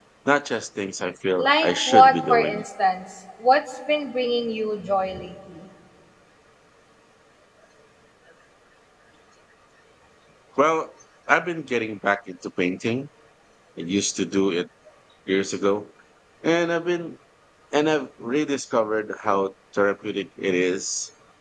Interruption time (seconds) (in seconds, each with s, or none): 1.4 s